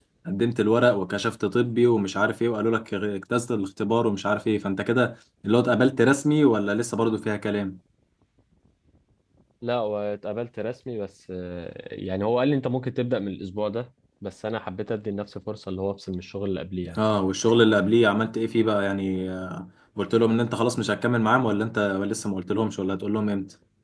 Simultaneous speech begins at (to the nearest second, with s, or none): none